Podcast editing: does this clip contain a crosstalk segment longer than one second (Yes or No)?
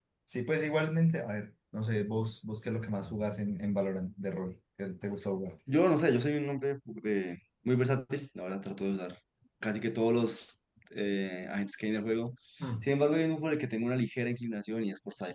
No